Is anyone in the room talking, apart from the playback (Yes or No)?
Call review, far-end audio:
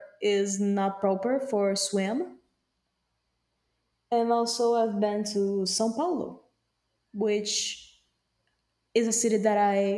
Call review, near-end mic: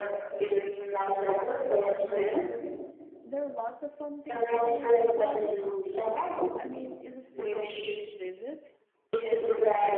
Yes